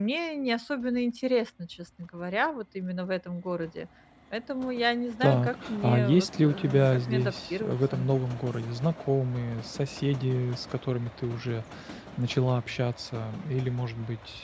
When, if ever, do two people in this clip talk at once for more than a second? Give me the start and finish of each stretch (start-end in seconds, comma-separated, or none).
5.2-8.1